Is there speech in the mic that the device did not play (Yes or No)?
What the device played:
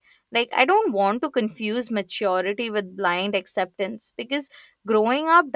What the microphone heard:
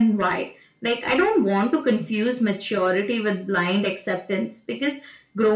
No